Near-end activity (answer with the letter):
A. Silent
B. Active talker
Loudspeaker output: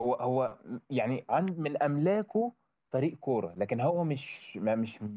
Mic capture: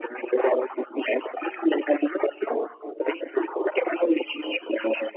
A